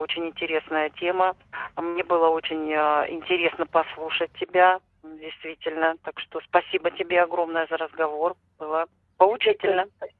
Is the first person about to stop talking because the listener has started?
Yes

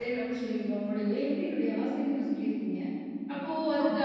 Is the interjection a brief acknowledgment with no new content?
Yes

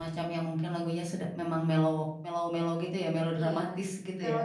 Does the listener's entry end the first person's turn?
Yes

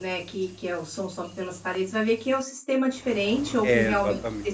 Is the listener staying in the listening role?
Yes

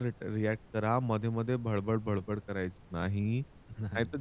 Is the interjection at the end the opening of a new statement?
No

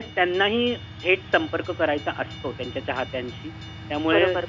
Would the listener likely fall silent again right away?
No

